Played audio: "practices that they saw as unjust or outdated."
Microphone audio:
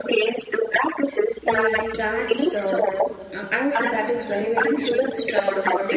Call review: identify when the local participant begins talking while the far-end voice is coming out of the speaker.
1.4 s

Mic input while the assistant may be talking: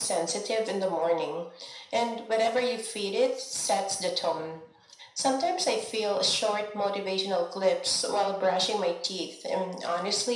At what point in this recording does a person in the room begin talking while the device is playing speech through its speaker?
none

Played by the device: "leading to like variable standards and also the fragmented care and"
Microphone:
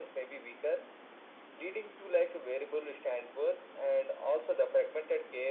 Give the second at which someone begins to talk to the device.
none

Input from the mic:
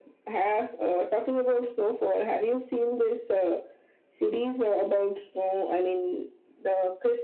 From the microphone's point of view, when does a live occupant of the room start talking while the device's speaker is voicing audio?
none

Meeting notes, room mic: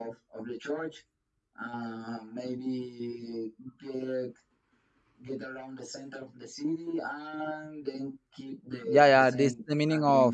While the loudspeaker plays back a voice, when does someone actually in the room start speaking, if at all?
8.8 s

